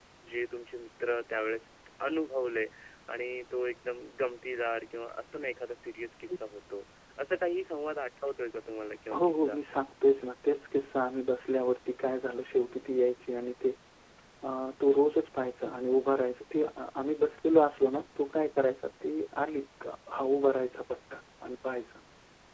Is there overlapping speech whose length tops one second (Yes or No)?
No